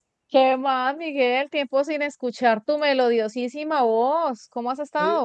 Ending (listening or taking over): taking over